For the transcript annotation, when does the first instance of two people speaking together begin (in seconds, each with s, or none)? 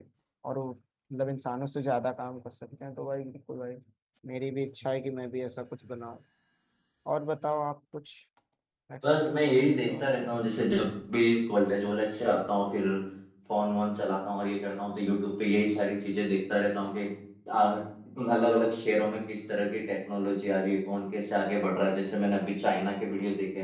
9.0 s